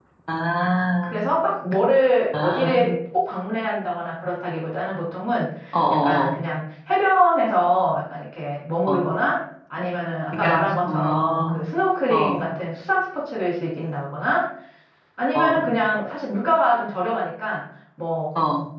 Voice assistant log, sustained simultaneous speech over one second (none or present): present